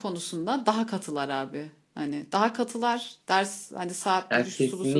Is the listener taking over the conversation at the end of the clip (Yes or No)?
No